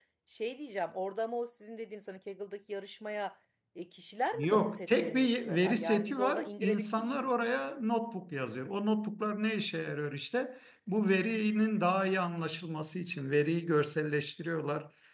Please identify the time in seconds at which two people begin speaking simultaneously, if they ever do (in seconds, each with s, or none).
4.3 s